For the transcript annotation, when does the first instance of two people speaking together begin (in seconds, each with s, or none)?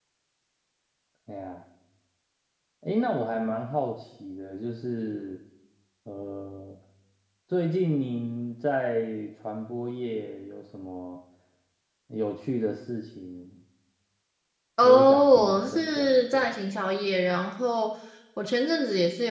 14.8 s